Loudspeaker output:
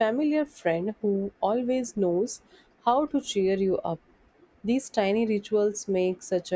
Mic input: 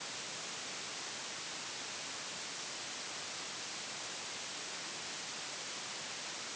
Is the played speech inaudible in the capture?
Yes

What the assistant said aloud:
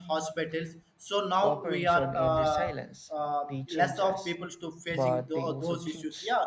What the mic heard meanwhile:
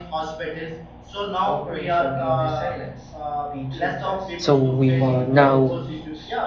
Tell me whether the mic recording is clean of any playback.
No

